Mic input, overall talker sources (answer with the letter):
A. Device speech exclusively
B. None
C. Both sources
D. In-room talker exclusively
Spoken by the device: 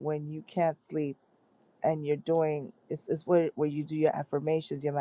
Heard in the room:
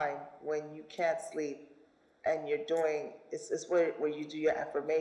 A